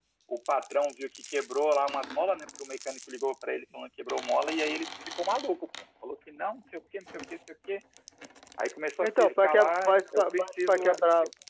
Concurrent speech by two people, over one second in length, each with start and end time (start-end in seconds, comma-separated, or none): 9.0-11.0